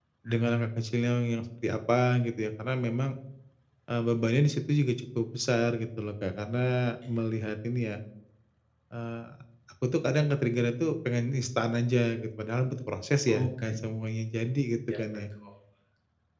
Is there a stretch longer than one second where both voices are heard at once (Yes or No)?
No